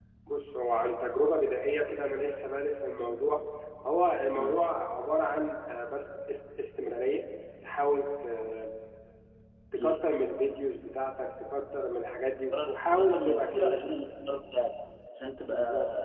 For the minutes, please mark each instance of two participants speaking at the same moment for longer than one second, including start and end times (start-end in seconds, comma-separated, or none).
12.5-13.8